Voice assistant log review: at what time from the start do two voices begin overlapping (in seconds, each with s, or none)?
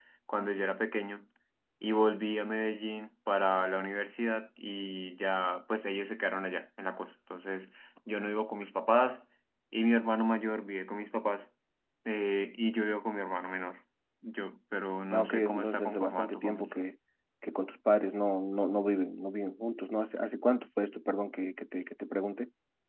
15.1 s